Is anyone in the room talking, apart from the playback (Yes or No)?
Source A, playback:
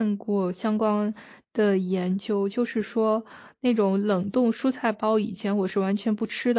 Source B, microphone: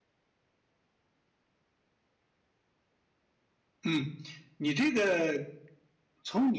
Yes